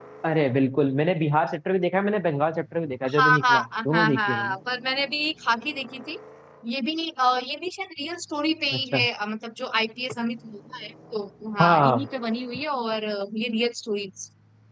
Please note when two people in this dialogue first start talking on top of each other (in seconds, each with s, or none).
3.1 s